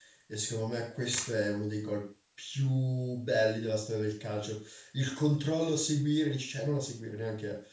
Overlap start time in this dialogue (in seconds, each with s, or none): none